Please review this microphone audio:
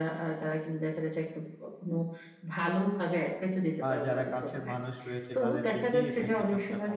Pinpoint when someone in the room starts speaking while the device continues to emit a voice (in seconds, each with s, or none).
3.9 s